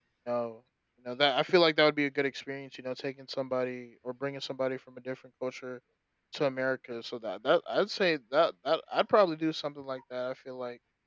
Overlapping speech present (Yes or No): No